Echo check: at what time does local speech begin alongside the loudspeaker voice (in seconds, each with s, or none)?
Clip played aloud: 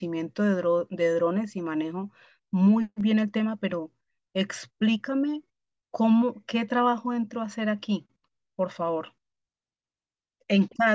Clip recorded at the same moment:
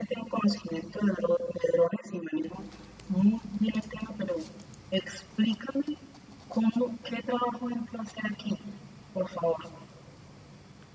none